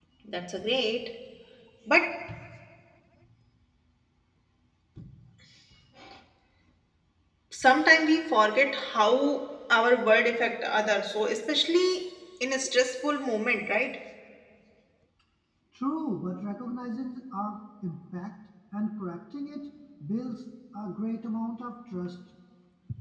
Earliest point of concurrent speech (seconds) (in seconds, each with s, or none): none